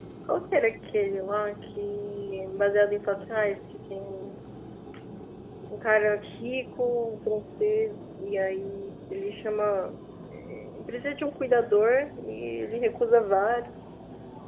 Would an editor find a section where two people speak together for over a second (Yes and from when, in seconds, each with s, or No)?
No